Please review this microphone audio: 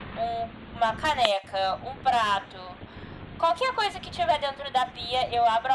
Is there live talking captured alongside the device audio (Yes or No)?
No